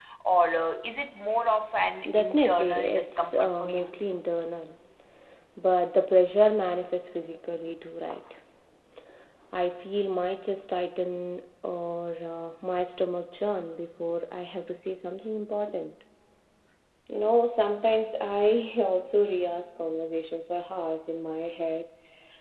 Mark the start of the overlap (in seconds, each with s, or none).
2.0 s